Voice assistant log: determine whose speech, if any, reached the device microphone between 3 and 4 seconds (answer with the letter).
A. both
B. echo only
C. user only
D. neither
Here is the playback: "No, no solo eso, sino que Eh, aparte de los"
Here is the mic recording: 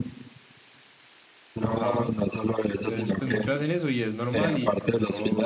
A